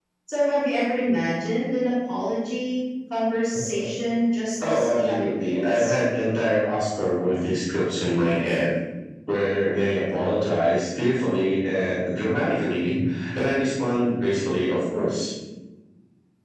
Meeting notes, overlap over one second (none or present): present